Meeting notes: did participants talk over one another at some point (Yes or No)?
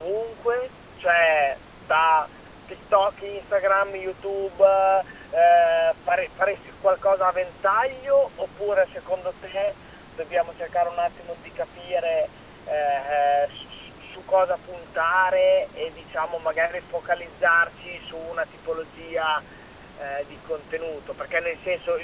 No